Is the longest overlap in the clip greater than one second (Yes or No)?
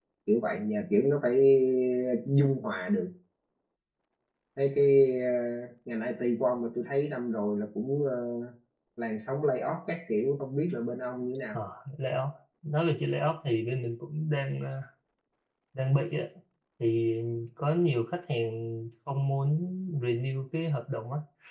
No